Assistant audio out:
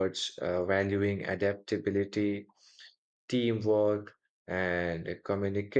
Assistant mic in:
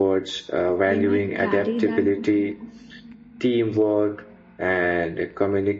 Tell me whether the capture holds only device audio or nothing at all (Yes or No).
No